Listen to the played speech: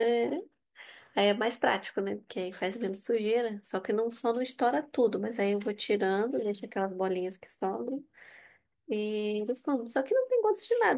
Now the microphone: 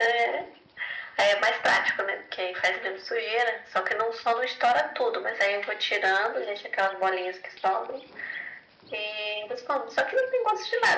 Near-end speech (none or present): none